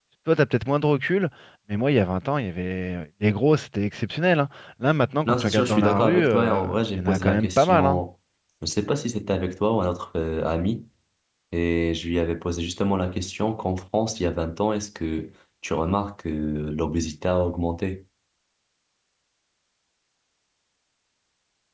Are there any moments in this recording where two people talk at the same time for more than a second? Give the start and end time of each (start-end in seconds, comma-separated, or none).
5.2-8.0